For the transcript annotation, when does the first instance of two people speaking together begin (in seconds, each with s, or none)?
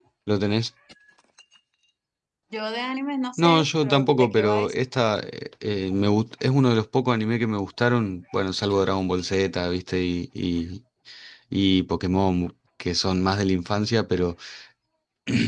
3.4 s